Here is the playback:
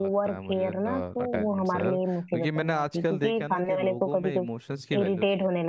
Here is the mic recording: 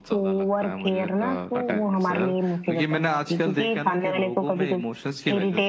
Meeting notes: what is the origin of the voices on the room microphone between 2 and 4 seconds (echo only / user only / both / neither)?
echo only